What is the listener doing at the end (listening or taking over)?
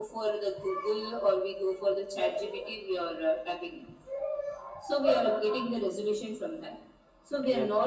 listening